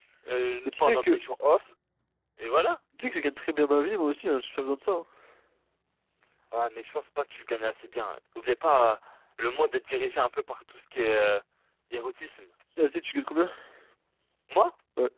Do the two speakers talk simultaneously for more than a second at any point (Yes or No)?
No